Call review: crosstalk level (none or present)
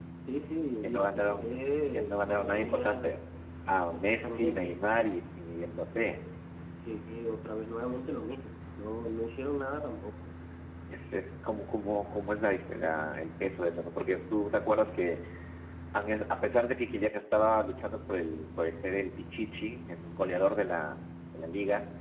present